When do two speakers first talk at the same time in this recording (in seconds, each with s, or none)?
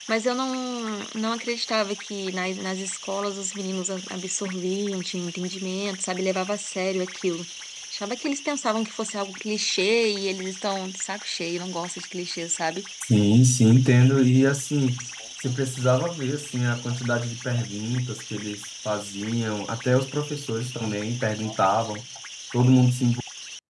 none